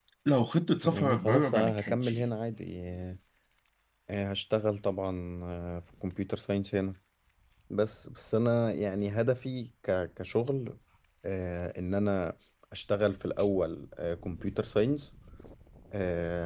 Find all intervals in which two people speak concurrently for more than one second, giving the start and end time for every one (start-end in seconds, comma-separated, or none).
0.8-2.1